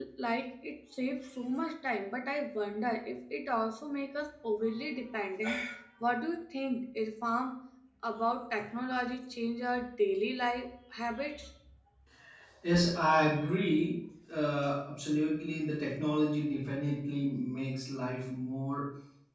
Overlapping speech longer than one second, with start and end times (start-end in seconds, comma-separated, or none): none